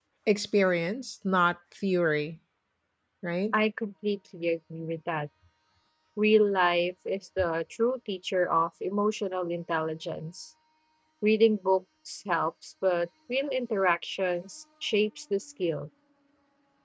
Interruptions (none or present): none